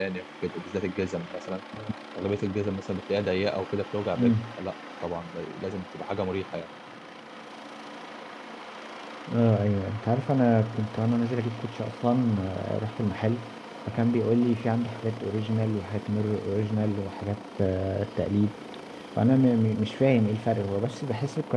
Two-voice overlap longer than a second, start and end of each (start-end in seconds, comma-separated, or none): none